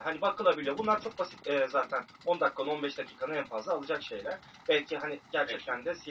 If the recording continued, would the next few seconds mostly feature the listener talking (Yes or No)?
No